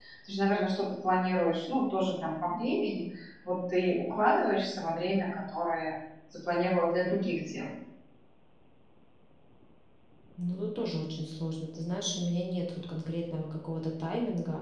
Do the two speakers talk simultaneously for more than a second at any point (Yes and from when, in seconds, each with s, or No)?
No